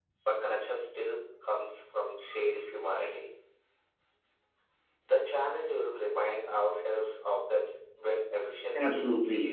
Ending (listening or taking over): taking over